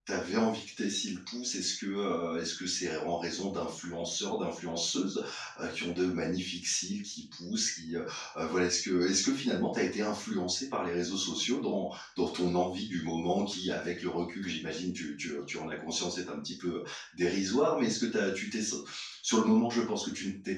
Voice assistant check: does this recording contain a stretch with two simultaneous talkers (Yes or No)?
No